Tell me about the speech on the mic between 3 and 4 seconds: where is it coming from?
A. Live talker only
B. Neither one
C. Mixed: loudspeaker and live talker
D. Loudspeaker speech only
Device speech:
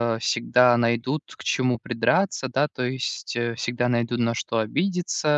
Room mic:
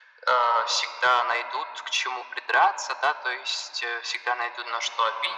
D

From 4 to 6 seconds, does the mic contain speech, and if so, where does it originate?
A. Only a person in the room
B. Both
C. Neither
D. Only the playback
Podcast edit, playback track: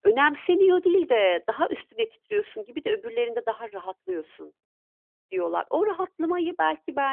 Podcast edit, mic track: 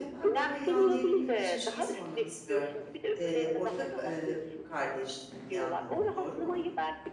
B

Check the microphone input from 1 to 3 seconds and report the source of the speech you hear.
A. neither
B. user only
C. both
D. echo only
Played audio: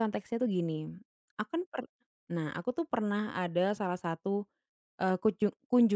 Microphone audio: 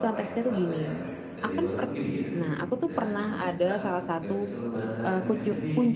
C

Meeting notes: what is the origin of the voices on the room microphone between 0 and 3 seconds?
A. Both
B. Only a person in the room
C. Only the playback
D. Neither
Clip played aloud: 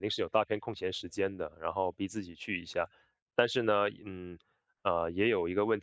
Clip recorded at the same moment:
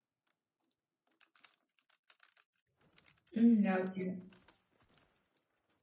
D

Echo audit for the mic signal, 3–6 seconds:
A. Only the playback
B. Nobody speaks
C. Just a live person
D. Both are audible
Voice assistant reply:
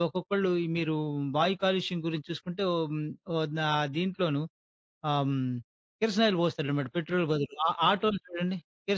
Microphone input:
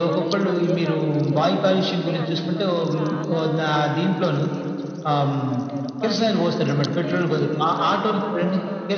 D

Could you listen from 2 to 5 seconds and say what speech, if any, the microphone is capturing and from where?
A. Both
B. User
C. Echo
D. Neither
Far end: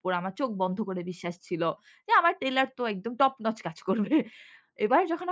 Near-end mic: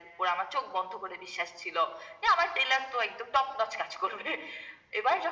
C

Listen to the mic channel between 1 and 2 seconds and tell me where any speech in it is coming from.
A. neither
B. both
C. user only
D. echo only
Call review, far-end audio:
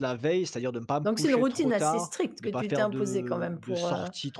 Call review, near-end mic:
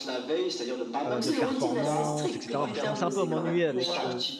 B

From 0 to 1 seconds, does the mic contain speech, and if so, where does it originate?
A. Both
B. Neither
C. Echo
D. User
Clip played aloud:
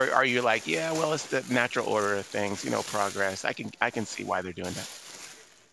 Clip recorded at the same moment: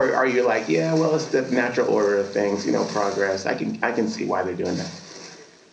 C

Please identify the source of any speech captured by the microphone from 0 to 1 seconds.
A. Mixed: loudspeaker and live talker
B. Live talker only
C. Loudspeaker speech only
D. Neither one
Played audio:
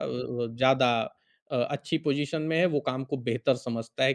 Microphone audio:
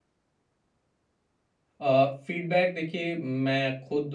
D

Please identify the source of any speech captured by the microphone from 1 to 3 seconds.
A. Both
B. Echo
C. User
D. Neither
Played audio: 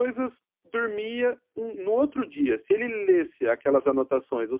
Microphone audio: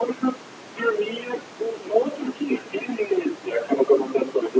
B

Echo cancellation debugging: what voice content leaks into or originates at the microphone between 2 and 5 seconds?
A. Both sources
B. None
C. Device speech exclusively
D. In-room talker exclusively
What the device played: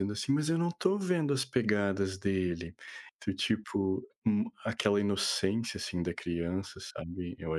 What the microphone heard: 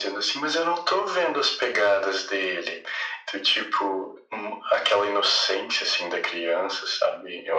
C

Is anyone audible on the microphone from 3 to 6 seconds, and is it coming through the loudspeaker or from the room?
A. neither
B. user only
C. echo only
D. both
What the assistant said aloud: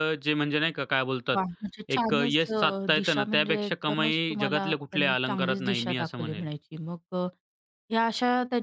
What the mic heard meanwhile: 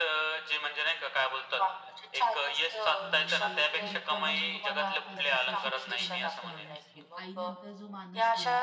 D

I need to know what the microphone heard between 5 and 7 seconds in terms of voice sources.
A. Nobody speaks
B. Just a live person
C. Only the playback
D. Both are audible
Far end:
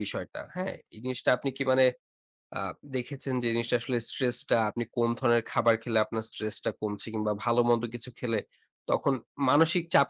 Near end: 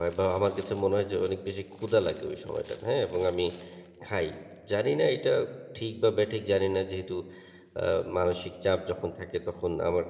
B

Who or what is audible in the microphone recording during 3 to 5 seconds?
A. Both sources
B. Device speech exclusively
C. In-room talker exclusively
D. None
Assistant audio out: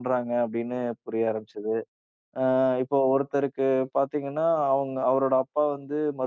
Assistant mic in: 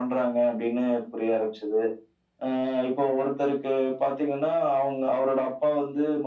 B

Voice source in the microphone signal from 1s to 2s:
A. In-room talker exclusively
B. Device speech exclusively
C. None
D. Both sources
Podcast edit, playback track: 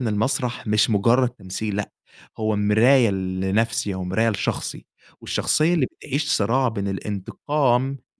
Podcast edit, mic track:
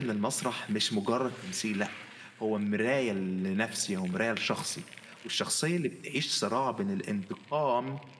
B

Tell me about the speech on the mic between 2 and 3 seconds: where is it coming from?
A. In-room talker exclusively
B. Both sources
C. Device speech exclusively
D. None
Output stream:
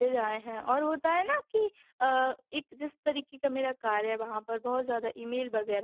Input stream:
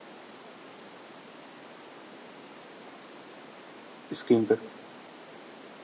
D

